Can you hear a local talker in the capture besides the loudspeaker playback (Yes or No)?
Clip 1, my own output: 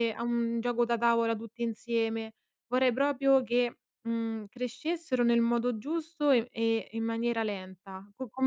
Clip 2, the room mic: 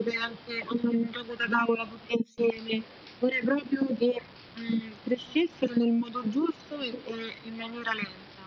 No